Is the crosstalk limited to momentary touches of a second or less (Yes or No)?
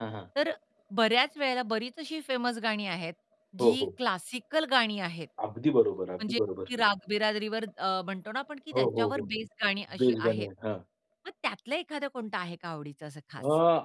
Yes